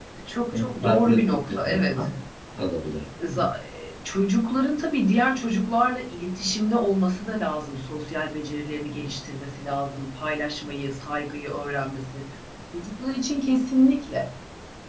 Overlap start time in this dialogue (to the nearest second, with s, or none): 1 s